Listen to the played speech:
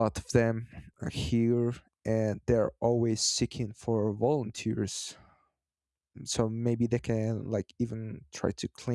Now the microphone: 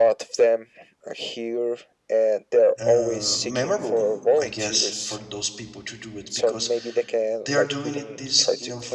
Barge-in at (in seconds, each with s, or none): 2.8 s